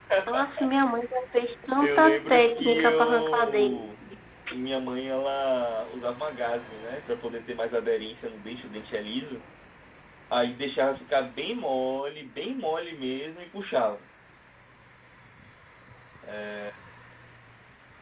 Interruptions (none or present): present